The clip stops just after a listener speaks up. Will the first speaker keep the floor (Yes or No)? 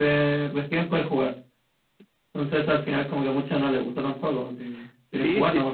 No